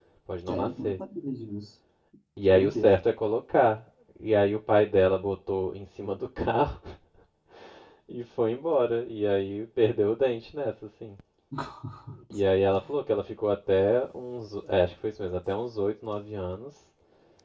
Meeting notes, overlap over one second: none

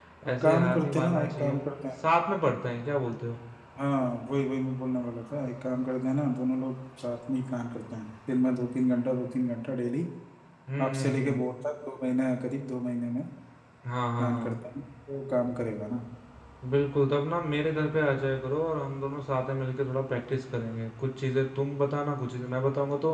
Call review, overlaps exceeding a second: present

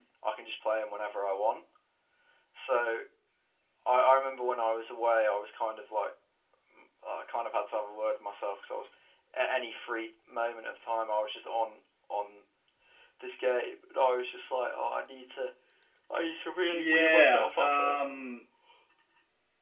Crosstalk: present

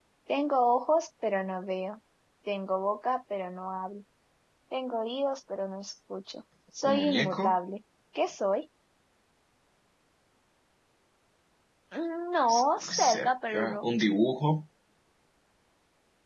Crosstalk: present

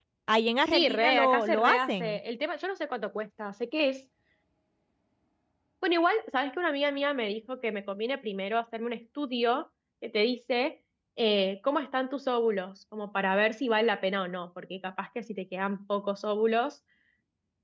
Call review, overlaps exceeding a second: present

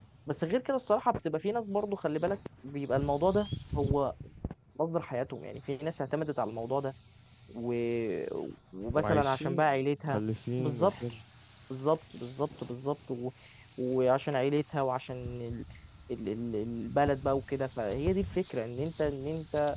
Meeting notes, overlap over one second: present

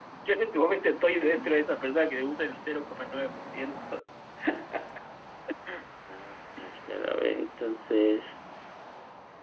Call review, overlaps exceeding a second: none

